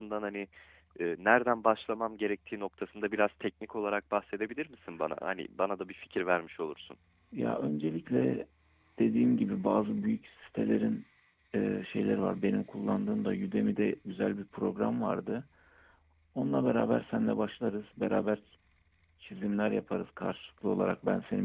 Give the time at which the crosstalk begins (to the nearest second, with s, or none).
none